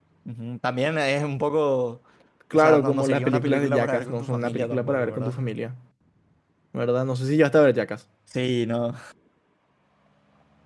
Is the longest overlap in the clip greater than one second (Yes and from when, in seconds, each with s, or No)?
Yes, from 2.5 s